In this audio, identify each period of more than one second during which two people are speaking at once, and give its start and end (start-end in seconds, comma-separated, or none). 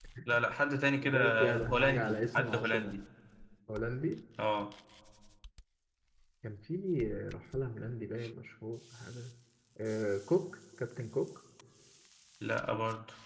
1.1-3.0